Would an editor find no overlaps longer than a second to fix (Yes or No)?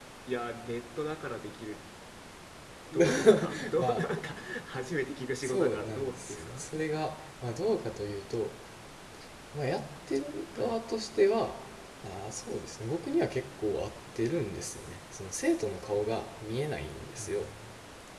No